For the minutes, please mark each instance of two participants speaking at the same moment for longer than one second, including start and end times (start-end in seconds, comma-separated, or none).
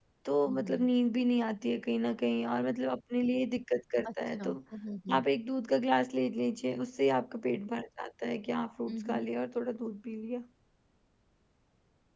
none